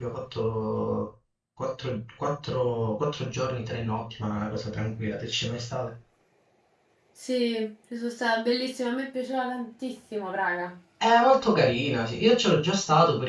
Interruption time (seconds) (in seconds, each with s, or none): none